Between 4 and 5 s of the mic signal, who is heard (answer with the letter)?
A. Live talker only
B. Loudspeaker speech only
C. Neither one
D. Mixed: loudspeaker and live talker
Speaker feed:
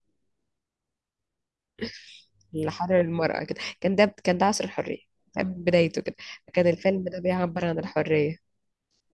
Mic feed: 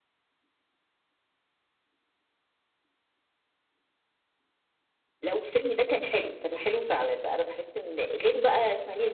C